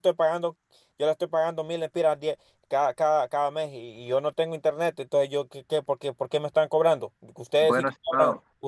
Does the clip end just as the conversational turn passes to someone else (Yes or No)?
No